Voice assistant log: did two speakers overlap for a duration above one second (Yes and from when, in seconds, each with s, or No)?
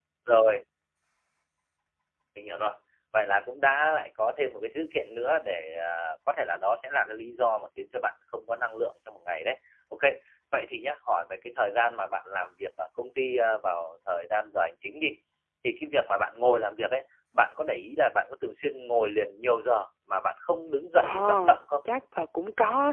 No